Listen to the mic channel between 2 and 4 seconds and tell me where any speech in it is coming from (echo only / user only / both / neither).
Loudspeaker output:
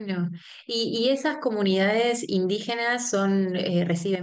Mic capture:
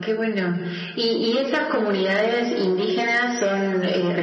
echo only